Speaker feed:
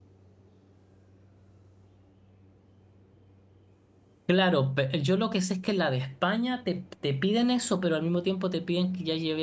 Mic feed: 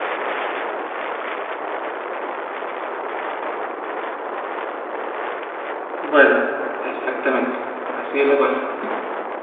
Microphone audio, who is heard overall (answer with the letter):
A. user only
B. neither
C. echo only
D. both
A